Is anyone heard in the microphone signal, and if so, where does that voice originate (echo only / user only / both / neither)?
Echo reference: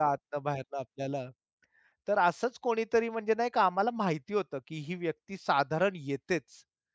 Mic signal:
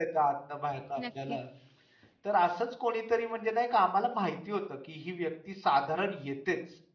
both